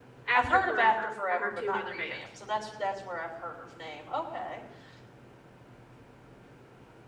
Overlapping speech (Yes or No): Yes